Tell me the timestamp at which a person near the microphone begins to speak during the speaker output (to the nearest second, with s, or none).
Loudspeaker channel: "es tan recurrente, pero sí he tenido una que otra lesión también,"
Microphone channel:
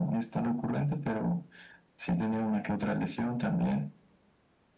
none